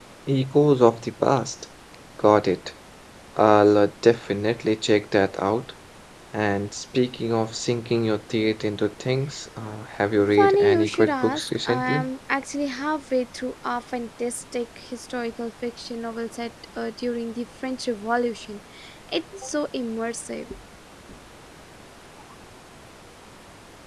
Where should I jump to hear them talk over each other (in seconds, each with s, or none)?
10.3 s